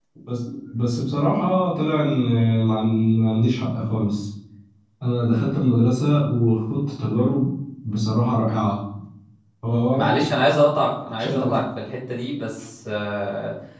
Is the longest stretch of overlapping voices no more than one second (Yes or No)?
Yes